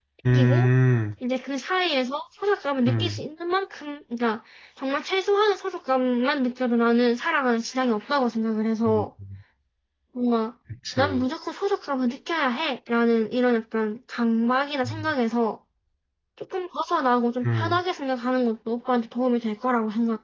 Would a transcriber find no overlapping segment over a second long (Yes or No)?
Yes